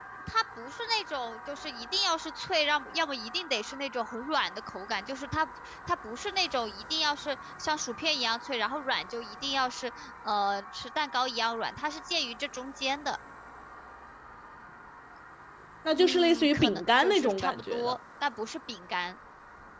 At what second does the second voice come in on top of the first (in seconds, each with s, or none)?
16.0 s